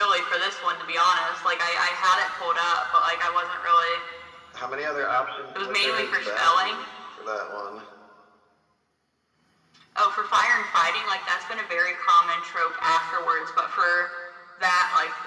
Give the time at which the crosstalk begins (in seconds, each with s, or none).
5.5 s